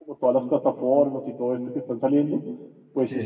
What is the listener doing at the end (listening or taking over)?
listening